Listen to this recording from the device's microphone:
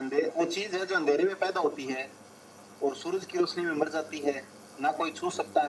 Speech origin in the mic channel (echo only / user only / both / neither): echo only